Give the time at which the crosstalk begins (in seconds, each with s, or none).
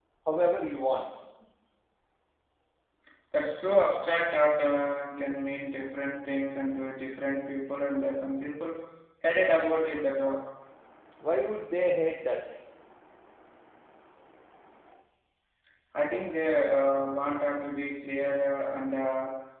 none